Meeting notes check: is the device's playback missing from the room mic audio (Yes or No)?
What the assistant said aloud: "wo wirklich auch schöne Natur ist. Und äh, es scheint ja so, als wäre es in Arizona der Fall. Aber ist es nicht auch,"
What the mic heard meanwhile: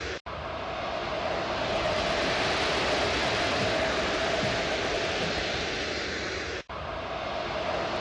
Yes